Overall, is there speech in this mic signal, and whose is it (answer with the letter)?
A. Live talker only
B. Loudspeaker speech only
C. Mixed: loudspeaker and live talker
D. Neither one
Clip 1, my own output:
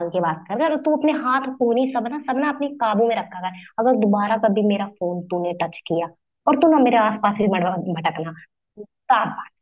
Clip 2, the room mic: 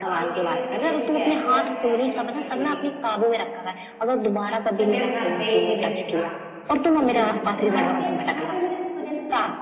C